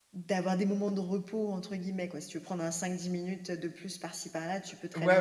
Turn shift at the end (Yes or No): Yes